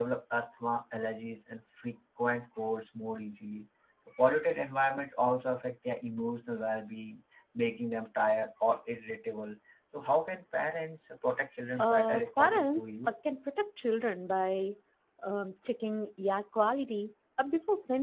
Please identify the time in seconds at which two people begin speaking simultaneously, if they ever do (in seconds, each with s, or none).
11.8 s